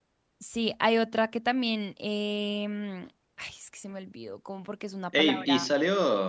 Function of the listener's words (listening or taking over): taking over